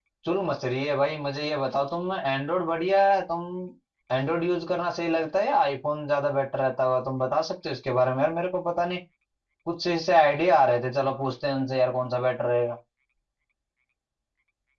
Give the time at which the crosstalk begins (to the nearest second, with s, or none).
none